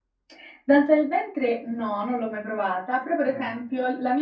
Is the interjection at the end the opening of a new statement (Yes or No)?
No